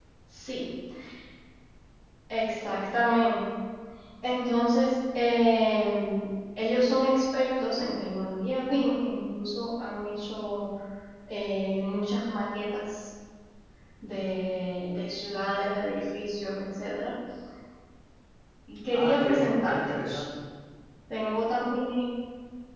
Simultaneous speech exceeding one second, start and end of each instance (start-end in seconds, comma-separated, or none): 18.9-20.2